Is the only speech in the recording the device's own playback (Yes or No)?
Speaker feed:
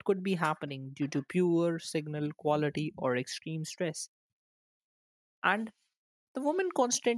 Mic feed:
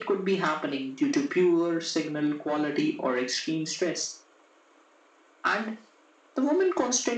Yes